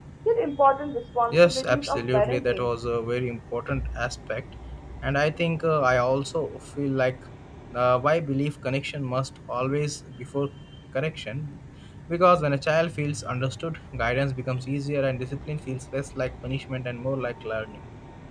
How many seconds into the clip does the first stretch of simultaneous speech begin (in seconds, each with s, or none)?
1.3 s